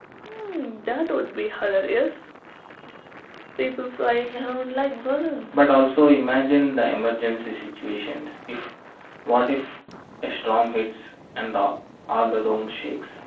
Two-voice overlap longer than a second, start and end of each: none

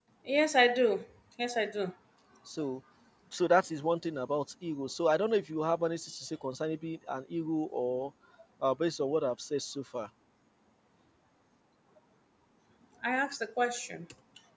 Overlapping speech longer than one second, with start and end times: none

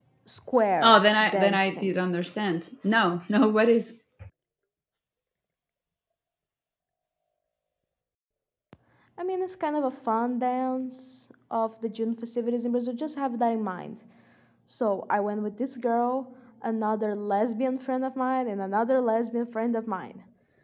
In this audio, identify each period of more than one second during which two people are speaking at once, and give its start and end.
0.8-2.1

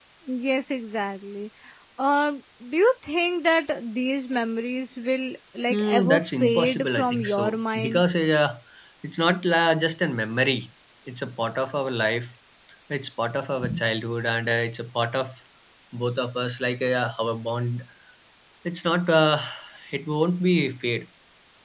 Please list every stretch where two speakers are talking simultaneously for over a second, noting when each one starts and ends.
5.7-8.0

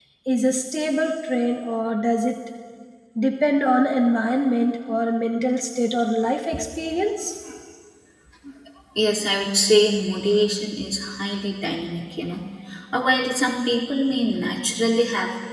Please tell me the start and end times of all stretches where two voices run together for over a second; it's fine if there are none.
none

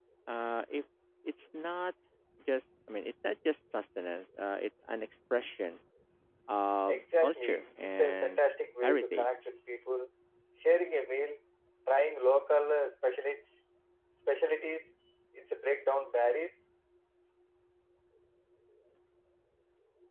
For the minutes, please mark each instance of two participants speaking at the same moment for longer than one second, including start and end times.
6.9-8.4

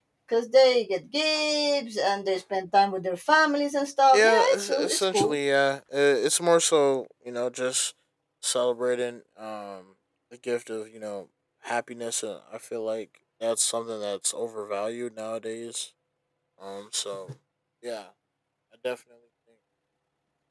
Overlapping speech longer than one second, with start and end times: 4.1-5.4

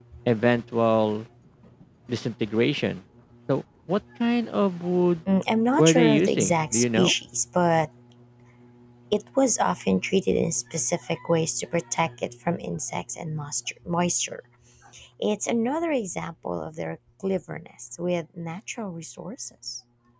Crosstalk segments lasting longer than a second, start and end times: 5.8-7.1

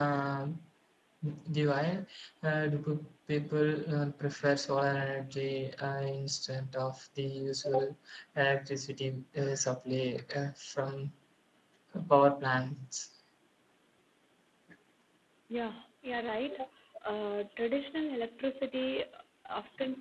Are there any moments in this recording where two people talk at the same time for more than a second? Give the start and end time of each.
none

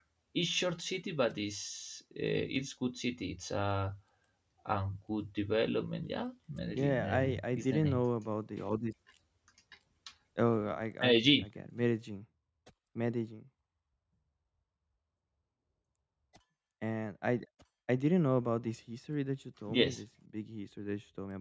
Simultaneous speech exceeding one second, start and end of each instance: 6.7-8.0

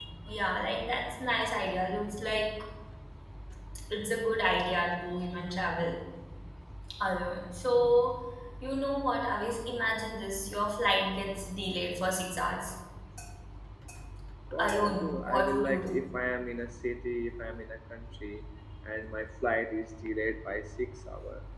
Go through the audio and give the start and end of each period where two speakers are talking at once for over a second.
14.6-15.9

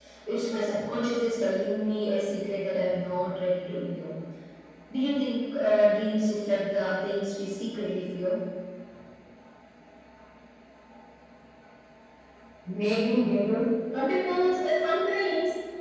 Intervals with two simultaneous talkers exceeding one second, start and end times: none

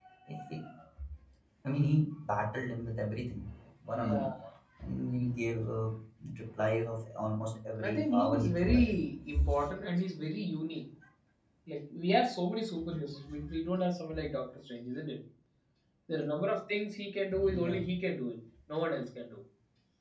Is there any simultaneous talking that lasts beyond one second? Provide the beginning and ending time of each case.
7.8-9.0

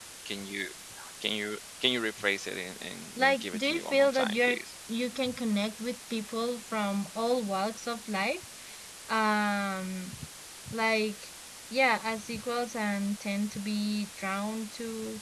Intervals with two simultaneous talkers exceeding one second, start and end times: 3.2-4.6

